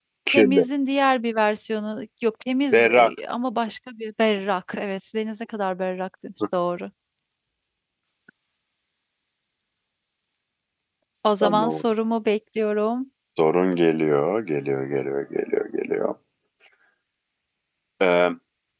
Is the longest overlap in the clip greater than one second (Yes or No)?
No